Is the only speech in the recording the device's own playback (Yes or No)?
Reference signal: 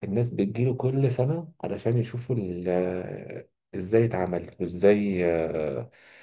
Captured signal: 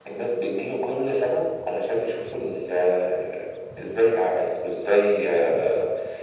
Yes